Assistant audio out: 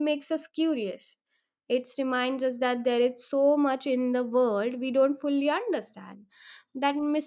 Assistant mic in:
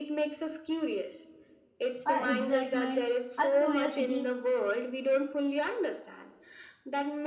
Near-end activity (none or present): present